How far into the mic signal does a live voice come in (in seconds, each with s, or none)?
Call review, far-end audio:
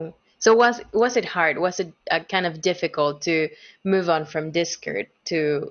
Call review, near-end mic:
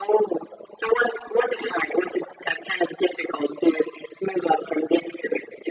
none